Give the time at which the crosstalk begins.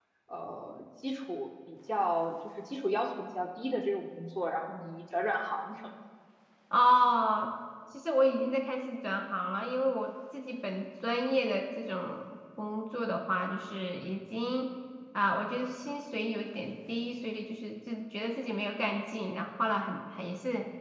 none

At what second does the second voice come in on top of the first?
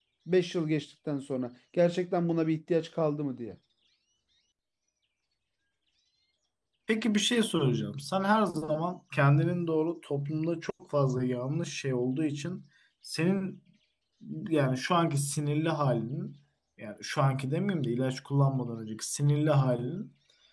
none

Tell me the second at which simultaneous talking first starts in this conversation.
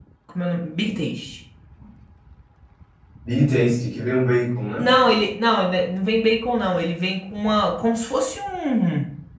none

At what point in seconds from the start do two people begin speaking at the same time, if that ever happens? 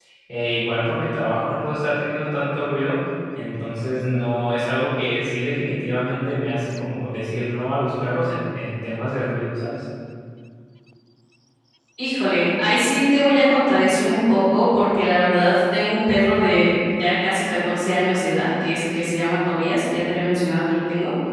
none

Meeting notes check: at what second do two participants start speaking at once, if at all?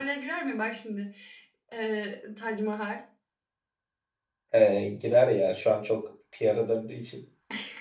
none

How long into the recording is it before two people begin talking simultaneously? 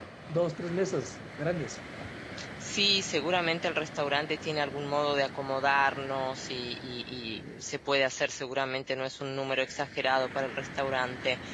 none

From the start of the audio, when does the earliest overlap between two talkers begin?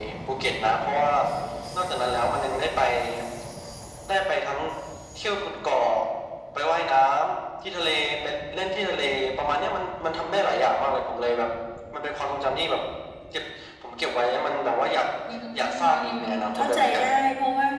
15.6 s

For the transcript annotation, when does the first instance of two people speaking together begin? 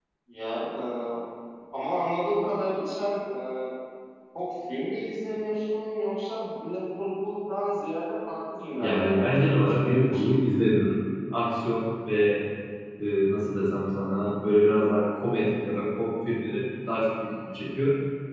8.8 s

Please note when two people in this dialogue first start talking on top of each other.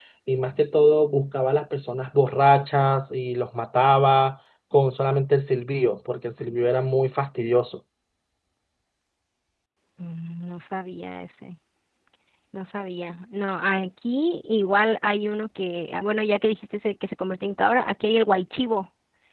none

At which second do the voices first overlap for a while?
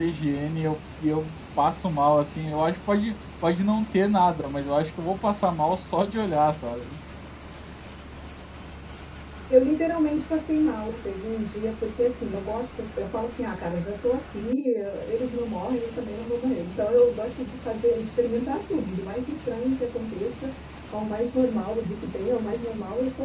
none

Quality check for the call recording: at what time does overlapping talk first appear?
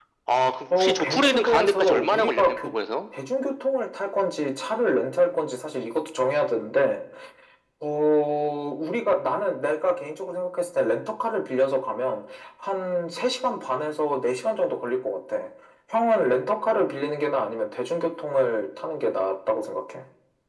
0.7 s

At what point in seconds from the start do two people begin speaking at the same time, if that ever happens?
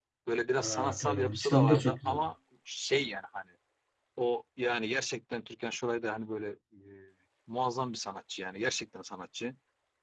0.6 s

